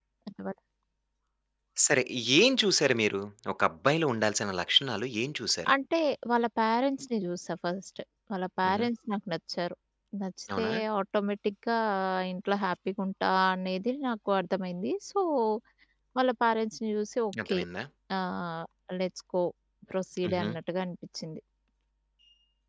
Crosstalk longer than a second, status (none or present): none